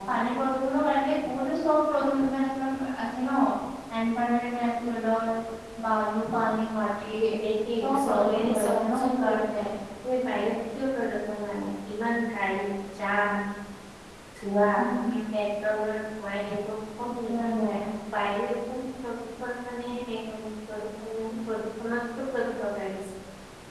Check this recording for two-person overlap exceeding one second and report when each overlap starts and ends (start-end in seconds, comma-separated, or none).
7.8-9.6